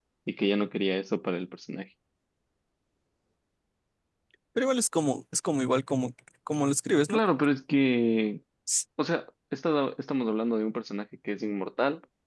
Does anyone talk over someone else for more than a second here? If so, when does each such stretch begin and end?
none

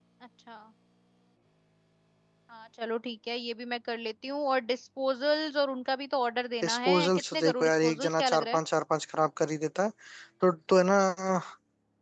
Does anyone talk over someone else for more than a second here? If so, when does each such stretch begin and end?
6.6-8.6

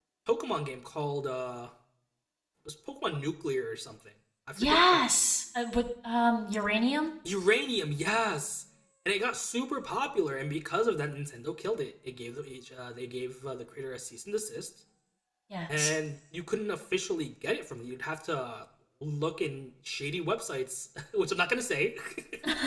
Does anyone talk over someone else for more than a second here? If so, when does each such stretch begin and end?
none

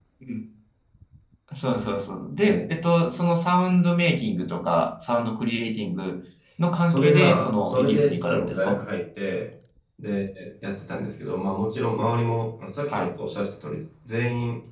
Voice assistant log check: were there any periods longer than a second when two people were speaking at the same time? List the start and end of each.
6.8-8.8

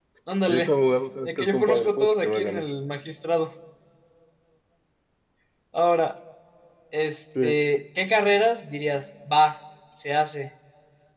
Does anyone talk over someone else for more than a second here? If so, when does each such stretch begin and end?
1.2-2.6

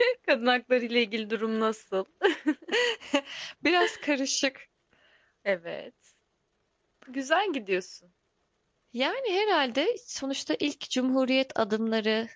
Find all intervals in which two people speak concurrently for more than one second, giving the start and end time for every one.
none

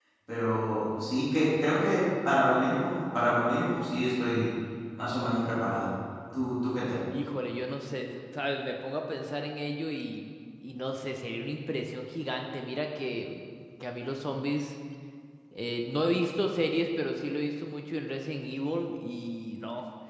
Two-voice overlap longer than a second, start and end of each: none

